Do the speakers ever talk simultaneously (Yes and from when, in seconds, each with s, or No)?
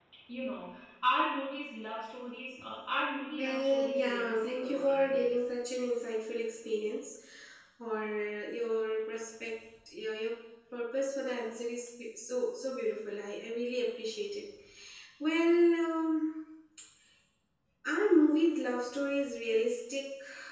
Yes, from 3.4 s